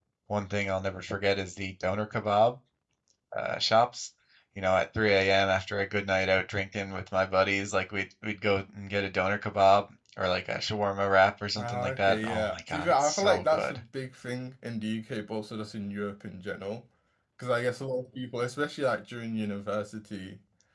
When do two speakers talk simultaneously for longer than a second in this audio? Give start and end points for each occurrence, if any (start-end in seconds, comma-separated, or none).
11.6-13.8